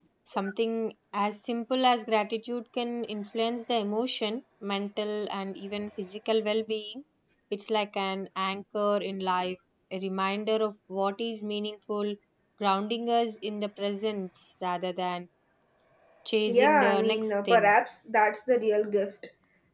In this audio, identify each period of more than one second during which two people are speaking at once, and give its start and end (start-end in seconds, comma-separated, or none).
16.5-17.7